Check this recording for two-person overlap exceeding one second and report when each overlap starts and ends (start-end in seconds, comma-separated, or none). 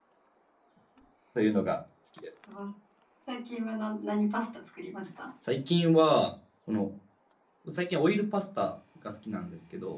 none